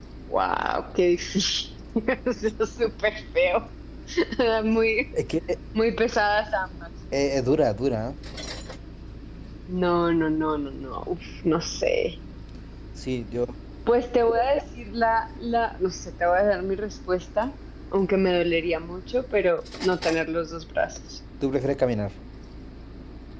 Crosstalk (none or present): none